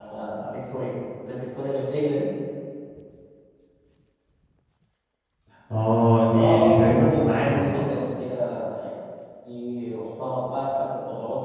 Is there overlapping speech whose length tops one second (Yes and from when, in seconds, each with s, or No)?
Yes, from 6.3 s